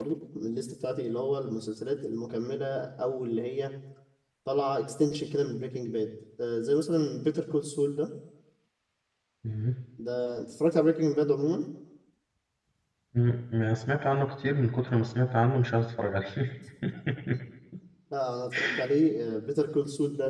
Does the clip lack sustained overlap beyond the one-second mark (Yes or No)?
Yes